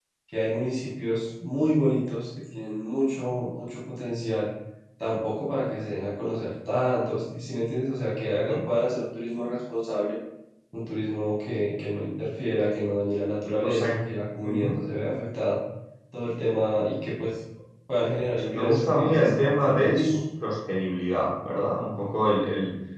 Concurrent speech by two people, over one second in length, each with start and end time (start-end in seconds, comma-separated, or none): 18.4-20.2